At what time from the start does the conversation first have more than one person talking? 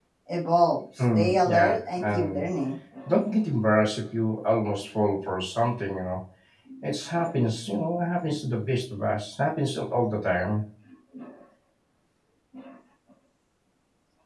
1 s

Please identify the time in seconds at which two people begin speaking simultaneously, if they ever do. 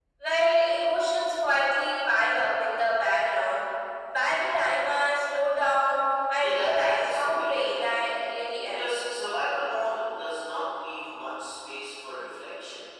6 s

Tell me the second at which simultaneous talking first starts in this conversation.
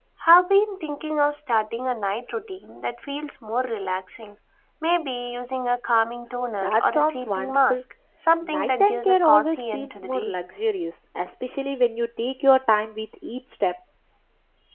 7 s

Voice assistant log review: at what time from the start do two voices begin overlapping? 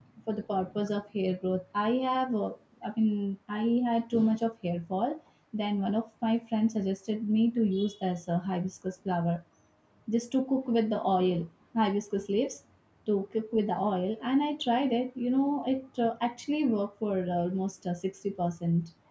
none

